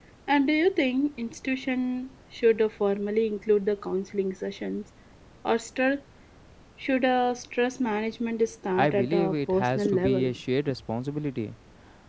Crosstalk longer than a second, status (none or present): present